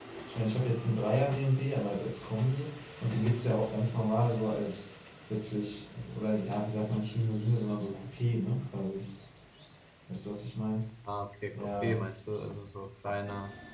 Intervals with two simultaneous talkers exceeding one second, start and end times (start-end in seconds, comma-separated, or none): none